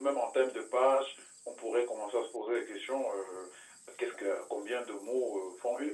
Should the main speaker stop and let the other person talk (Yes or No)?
Yes